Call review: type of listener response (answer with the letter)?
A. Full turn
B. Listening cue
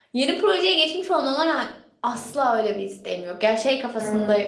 B